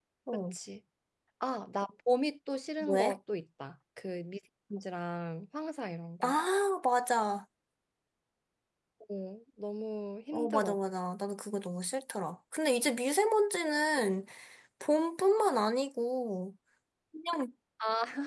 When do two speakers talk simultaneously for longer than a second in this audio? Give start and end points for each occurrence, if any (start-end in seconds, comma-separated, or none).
none